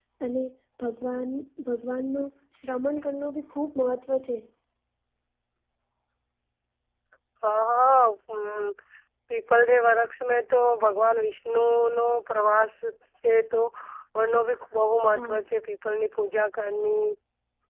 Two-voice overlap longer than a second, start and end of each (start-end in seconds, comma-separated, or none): none